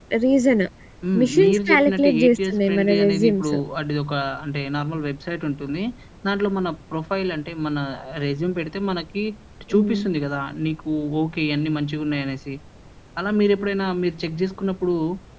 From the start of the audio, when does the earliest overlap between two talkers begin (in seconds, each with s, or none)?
1.2 s